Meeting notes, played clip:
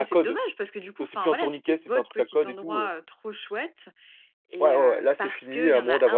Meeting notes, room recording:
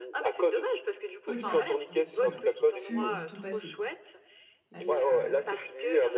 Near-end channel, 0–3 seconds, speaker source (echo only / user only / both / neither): both